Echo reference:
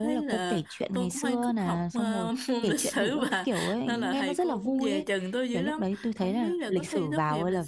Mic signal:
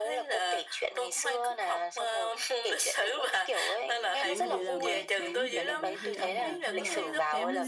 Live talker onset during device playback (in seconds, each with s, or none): 4.2 s